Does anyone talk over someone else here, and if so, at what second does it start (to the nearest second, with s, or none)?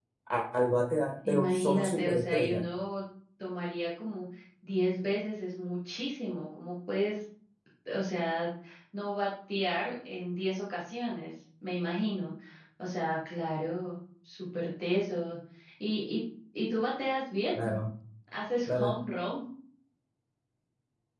1 s